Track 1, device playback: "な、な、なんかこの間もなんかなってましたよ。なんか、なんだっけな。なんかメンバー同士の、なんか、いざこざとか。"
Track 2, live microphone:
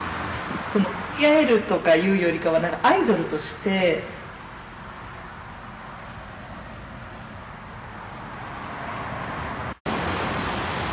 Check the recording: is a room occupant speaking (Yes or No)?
Yes